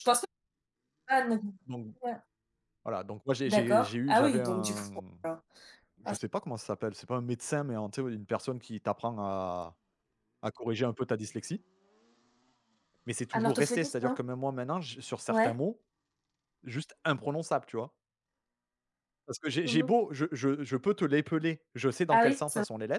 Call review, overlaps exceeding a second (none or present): present